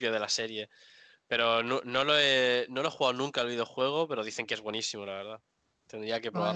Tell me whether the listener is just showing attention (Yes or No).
No